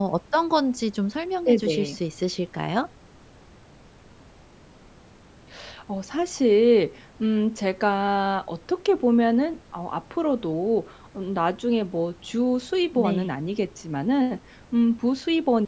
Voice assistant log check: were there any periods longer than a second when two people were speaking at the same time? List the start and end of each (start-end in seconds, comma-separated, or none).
none